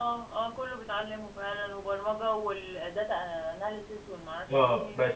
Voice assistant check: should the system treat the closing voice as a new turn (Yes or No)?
Yes